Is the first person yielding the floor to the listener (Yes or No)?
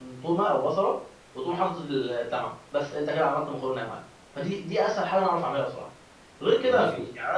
No